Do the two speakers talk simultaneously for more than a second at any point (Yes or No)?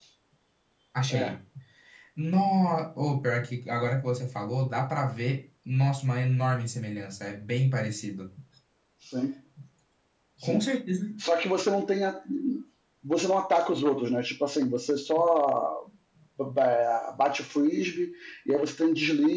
No